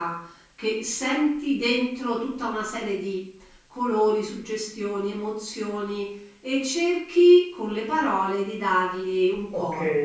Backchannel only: No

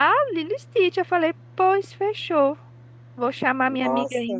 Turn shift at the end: No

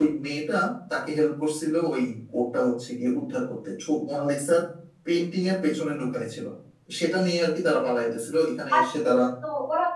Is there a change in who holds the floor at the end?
Yes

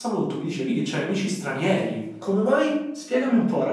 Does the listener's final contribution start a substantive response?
Yes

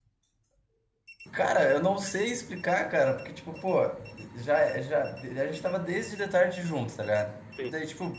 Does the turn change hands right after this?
No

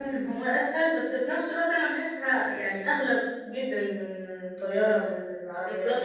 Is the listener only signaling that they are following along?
No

